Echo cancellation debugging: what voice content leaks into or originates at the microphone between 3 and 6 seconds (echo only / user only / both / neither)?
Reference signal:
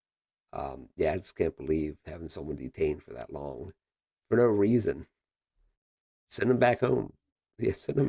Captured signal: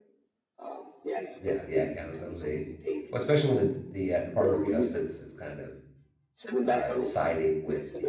both